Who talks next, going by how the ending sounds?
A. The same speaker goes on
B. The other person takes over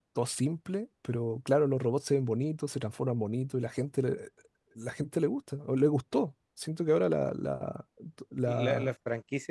B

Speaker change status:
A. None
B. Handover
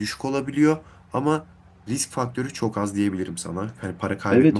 B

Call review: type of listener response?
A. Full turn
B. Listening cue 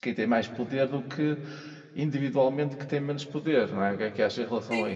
A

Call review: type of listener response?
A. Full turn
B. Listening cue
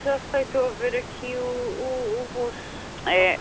A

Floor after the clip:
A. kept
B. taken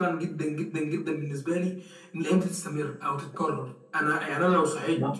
A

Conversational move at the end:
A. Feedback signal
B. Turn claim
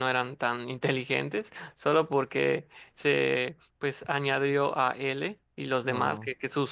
A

